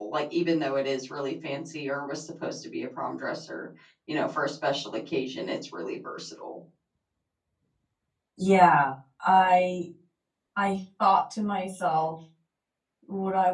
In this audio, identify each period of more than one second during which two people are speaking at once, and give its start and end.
none

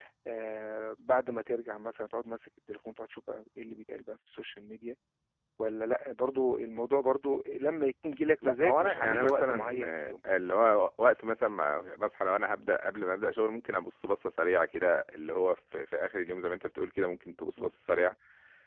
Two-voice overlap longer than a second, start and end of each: 8.4-9.8

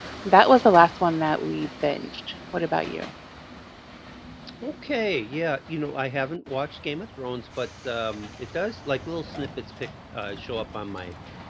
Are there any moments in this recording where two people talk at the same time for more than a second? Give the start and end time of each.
none

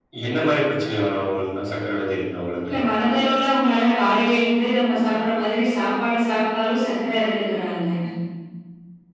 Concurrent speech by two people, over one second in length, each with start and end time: none

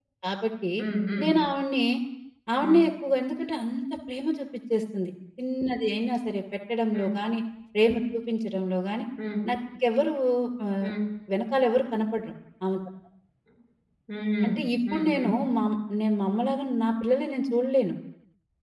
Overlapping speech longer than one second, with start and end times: none

